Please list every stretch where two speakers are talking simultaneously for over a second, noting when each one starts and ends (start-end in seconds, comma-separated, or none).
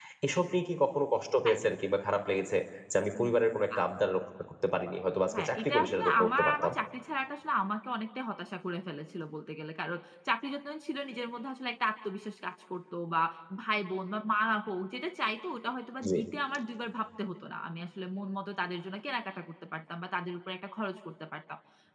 5.3-6.7